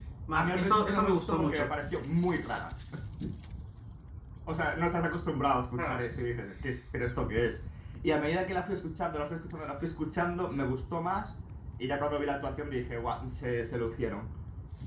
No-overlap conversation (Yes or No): No